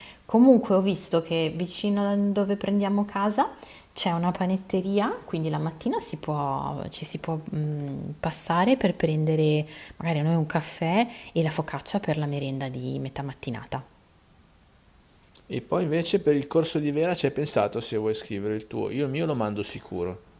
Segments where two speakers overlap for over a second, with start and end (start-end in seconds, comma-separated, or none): none